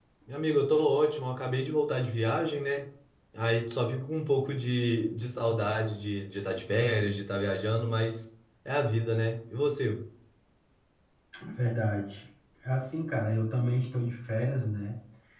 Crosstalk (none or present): none